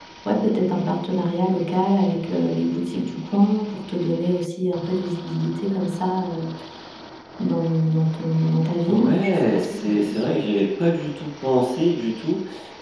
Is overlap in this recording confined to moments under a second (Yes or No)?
No